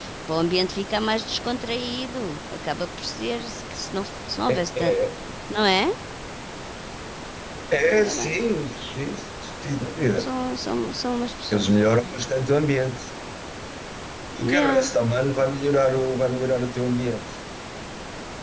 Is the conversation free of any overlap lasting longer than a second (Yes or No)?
Yes